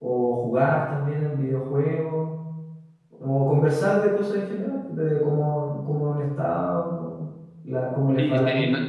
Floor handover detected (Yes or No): Yes